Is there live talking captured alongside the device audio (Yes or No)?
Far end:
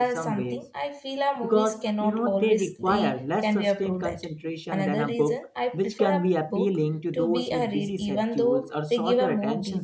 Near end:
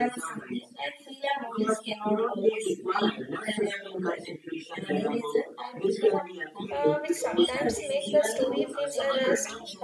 Yes